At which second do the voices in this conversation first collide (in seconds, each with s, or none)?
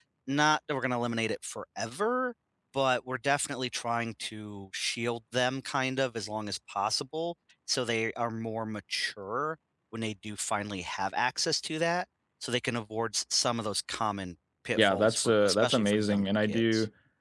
14.8 s